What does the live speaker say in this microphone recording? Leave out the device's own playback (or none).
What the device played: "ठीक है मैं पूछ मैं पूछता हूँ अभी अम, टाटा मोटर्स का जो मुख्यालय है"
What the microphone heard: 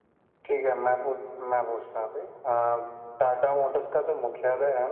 none